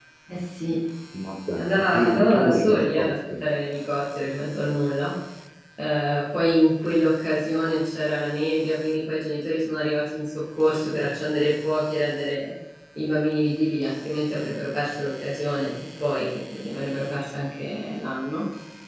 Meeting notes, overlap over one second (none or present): present